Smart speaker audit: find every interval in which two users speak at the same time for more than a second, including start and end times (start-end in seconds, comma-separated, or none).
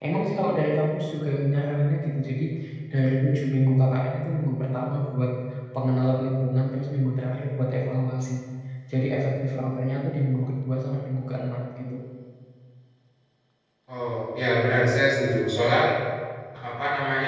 none